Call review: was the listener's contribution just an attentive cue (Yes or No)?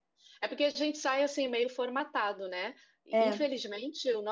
Yes